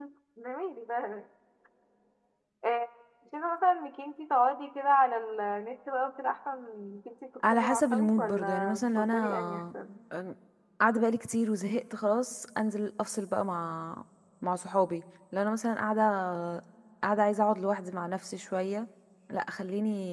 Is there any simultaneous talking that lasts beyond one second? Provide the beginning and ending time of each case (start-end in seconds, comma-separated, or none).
7.5-9.6